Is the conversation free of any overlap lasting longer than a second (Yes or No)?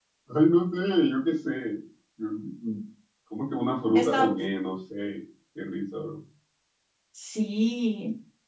Yes